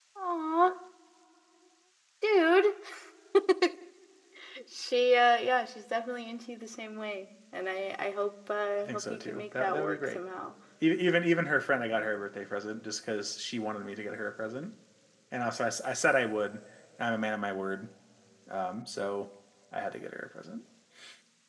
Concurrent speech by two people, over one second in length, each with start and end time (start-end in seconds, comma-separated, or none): 8.9-10.2